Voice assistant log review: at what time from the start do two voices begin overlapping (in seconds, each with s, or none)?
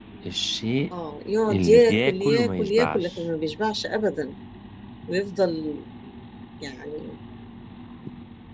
1.5 s